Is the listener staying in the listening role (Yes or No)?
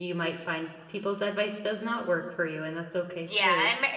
No